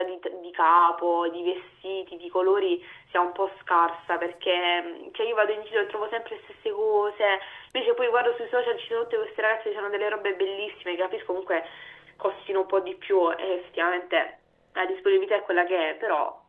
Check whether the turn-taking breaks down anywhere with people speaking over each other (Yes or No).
No